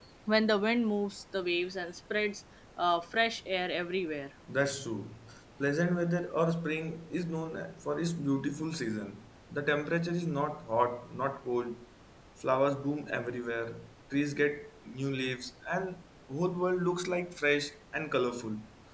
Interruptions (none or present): none